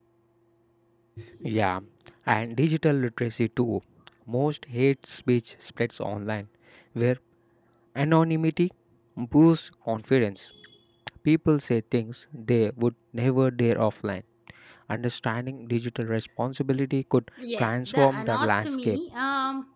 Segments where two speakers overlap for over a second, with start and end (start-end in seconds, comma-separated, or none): 17.6-19.0